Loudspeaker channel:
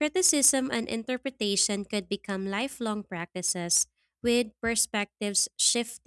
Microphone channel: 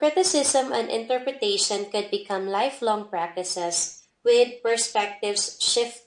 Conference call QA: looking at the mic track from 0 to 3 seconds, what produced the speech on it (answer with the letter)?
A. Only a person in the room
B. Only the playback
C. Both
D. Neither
B